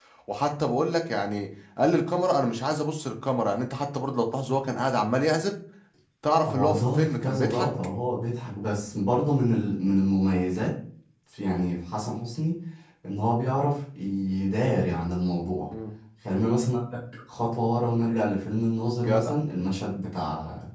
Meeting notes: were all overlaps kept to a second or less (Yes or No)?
No